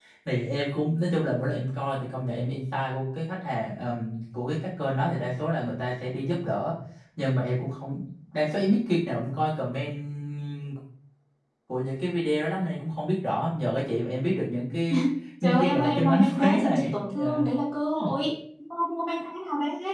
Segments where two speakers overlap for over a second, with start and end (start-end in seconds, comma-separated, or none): 15.6-17.4